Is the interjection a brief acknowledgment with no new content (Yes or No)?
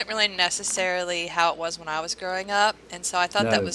Yes